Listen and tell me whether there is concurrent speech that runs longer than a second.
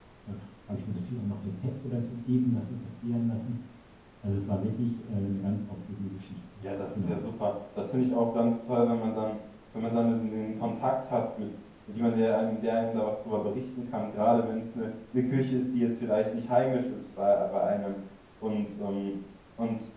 No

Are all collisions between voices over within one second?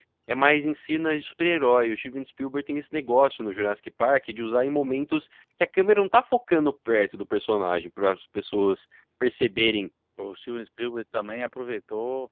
Yes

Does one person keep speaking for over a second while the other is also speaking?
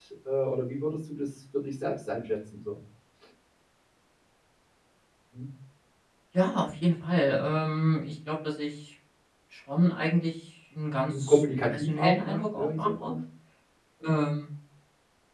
Yes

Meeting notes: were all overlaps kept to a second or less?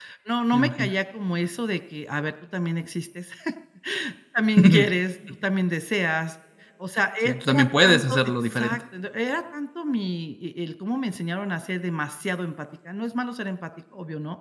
No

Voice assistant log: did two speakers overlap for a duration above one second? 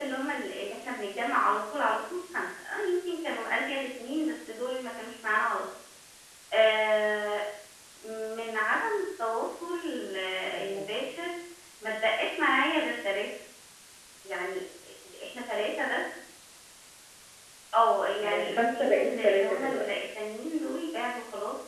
Yes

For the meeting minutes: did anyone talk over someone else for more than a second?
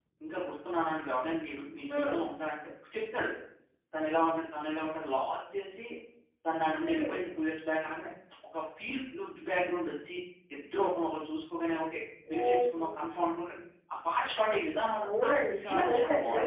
Yes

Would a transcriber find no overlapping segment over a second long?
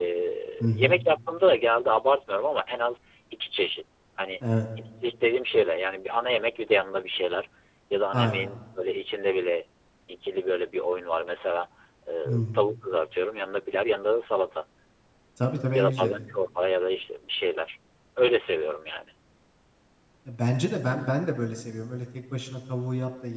Yes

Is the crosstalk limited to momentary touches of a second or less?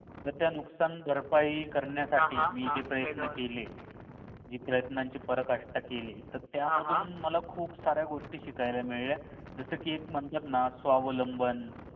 No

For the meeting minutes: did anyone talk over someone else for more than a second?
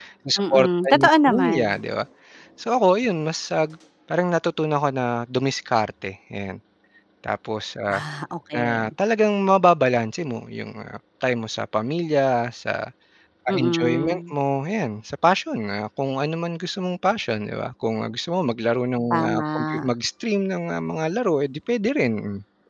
Yes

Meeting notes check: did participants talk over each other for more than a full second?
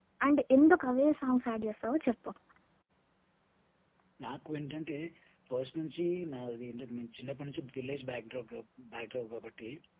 No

